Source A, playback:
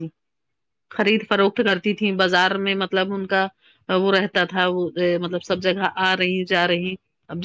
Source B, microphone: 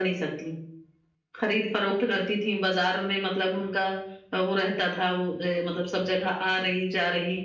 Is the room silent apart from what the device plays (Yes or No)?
Yes